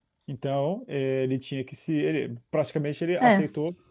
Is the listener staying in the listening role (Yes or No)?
Yes